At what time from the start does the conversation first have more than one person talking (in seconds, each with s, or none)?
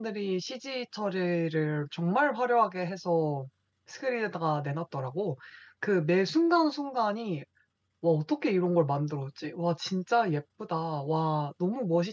none